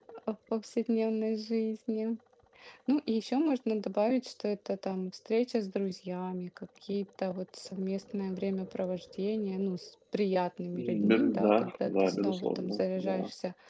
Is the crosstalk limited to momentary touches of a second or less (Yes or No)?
No